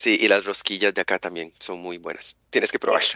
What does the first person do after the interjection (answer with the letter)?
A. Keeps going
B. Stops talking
B